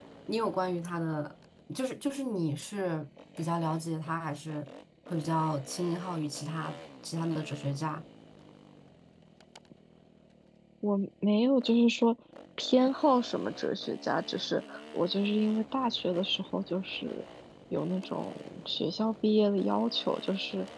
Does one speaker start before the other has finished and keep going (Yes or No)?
No